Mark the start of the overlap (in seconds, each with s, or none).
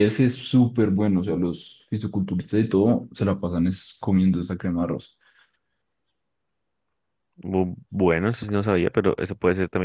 none